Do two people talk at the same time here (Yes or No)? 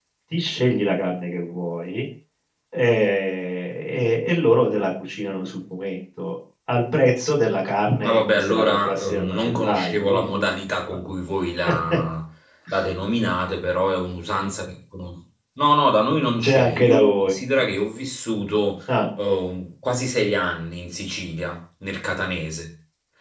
Yes